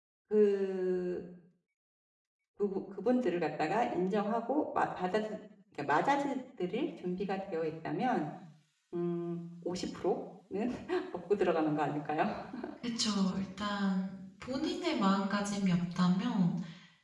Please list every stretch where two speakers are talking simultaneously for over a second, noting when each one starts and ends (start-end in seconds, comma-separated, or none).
none